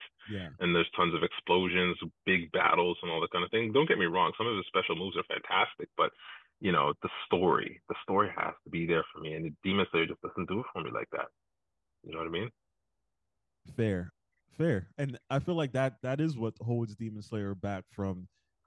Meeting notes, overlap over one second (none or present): none